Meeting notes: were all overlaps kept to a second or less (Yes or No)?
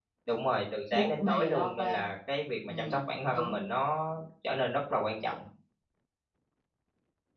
No